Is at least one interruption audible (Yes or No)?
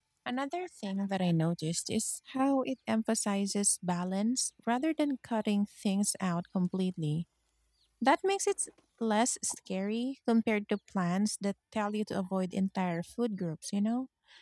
No